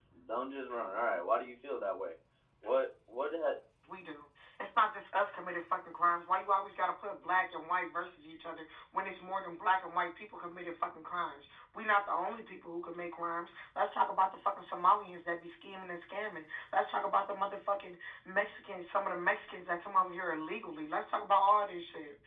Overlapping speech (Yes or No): No